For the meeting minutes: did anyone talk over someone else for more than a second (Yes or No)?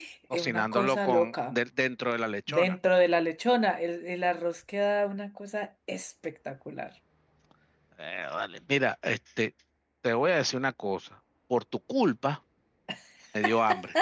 Yes